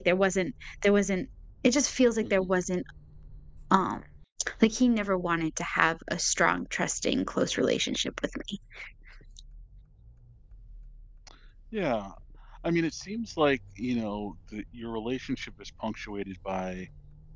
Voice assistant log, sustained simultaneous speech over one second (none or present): none